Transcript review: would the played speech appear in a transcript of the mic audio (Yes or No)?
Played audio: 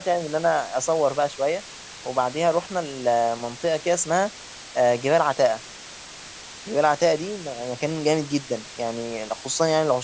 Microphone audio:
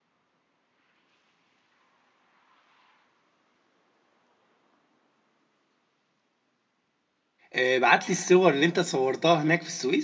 No